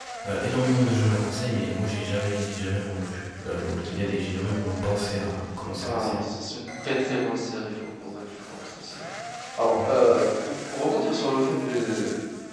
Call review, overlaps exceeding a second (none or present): none